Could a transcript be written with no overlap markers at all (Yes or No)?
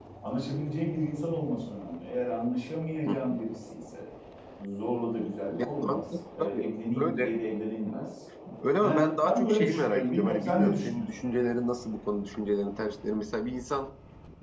No